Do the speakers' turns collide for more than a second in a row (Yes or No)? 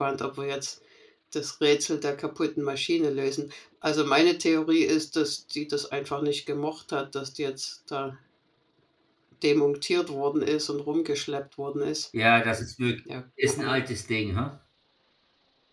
No